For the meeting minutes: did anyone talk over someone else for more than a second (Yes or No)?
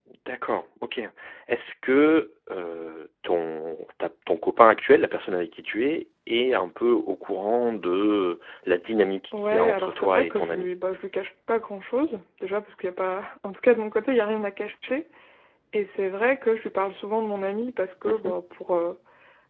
Yes